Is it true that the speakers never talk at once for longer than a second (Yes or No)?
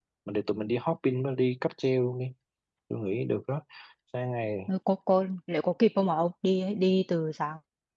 Yes